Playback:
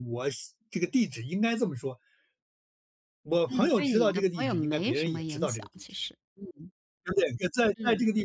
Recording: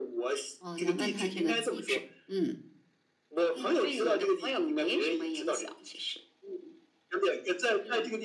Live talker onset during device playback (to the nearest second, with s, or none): 1 s